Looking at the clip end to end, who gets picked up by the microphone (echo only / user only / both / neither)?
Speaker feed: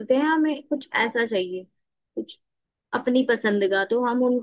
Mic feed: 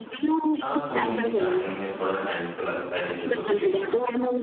both